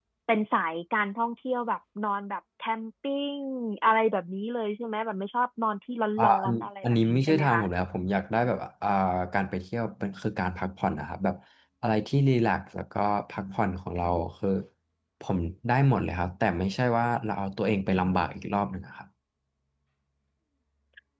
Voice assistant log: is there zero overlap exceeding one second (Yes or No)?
No